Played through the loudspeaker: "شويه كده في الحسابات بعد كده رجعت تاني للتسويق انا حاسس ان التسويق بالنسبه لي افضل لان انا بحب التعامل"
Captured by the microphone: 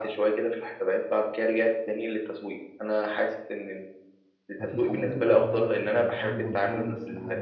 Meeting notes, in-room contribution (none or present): present